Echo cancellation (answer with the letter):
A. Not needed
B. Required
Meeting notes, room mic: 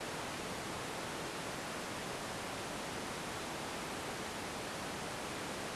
A